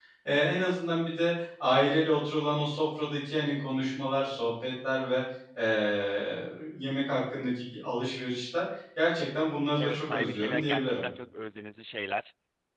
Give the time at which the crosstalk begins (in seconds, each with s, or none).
9.8 s